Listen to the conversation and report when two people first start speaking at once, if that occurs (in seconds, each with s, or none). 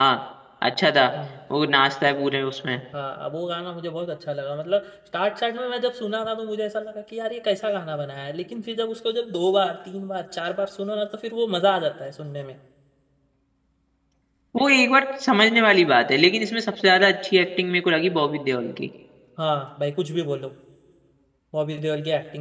none